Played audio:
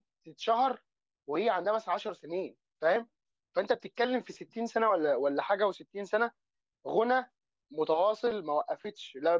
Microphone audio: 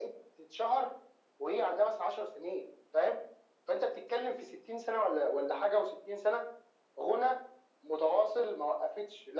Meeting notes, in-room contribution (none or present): none